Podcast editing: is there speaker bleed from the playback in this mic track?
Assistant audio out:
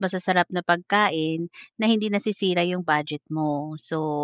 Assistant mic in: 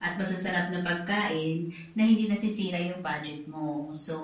Yes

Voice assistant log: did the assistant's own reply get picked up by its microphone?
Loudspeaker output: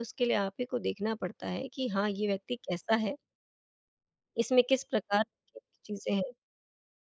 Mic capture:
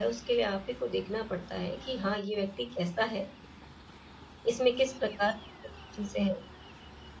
Yes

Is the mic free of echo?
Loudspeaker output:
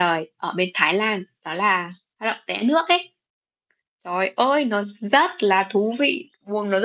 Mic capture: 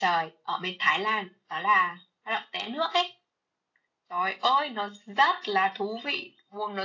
No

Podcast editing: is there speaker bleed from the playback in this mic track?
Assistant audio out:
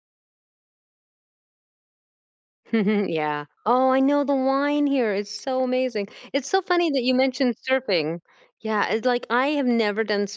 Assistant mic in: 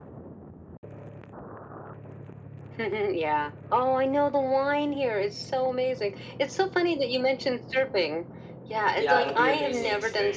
Yes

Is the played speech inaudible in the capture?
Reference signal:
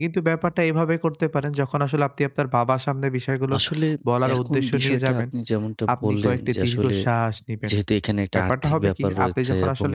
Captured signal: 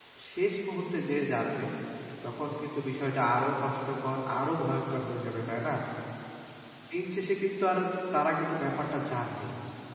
Yes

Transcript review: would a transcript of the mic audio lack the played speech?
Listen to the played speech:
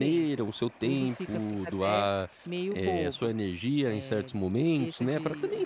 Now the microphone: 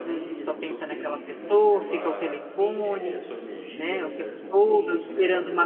No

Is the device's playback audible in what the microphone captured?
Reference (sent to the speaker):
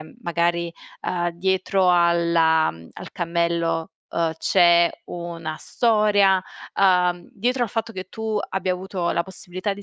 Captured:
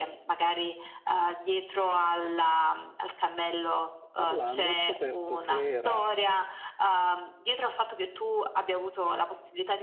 Yes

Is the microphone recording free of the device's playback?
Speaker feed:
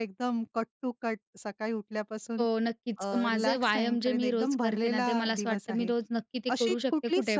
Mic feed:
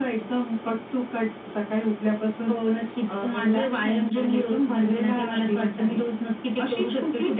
No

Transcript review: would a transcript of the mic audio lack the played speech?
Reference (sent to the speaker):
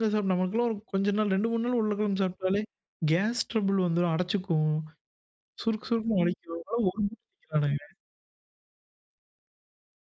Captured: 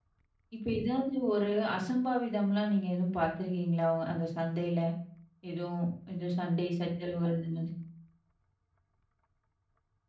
Yes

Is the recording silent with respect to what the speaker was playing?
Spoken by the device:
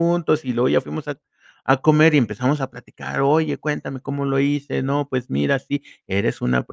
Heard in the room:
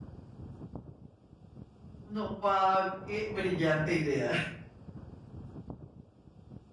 Yes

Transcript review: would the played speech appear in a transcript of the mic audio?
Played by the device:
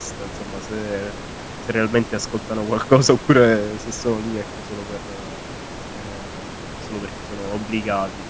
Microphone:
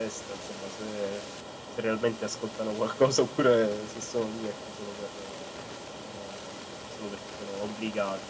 Yes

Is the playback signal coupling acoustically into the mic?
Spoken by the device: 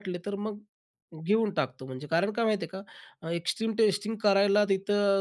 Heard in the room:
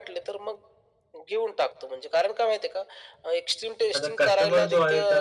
Yes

